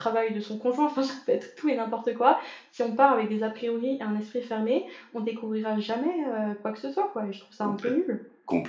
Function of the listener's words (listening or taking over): taking over